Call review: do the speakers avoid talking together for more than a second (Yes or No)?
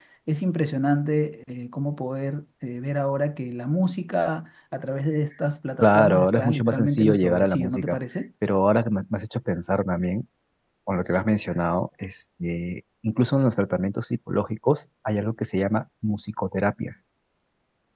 No